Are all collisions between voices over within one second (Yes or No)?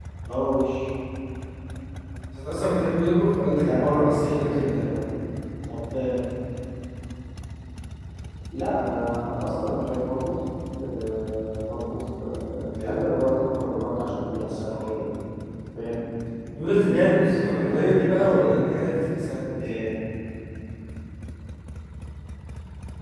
No